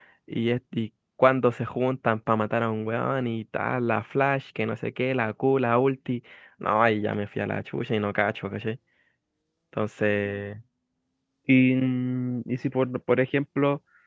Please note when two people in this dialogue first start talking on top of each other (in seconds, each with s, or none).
none